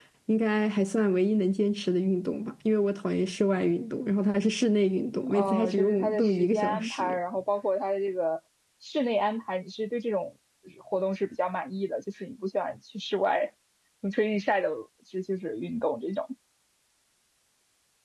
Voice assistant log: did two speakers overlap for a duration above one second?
Yes, from 5.3 s

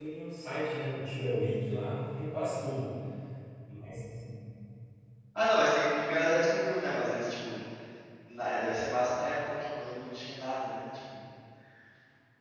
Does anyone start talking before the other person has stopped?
No

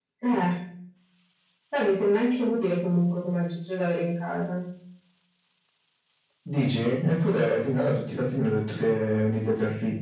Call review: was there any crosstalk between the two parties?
No

